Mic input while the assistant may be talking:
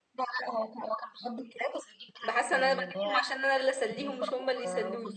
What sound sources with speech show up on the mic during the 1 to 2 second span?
echo only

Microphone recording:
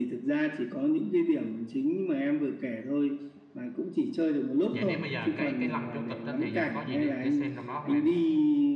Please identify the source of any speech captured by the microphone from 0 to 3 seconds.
echo only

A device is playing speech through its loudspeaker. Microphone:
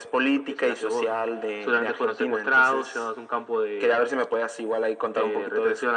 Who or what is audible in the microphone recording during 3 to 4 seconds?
echo only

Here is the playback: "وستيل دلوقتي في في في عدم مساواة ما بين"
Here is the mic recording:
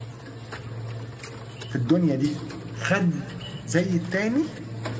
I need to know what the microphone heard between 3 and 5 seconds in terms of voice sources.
user only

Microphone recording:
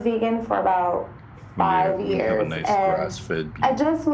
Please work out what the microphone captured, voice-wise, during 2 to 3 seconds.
both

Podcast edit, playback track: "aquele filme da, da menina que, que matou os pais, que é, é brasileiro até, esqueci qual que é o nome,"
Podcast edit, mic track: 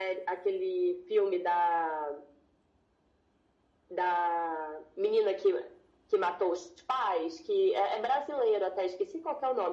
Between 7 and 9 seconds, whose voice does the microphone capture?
echo only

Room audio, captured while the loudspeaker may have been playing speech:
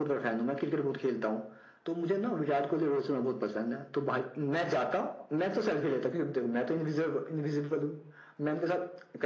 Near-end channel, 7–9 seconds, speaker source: echo only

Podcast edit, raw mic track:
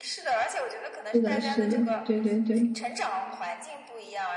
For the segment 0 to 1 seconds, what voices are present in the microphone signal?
echo only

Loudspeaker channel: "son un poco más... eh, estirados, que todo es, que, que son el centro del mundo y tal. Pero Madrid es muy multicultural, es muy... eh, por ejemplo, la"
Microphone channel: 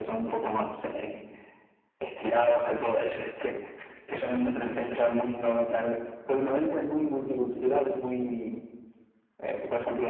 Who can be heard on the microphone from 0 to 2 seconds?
echo only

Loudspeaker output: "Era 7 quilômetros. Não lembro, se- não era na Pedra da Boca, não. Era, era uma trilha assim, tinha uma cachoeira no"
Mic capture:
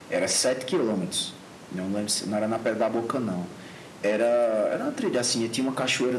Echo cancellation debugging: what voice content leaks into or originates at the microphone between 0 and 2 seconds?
echo only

